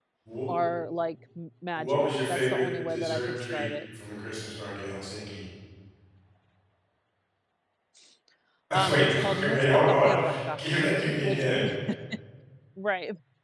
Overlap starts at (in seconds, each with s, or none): 1.8 s